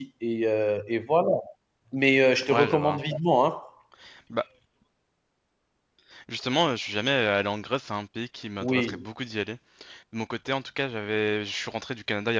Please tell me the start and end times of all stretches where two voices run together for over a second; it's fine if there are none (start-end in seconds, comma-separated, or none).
none